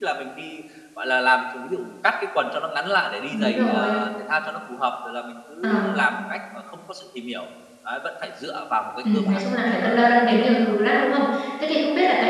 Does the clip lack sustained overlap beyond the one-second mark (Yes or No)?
No